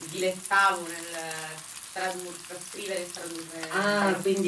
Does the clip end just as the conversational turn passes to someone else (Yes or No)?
Yes